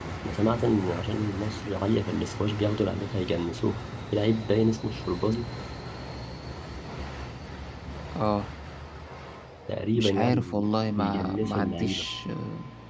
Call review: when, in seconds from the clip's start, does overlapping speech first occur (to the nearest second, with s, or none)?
10 s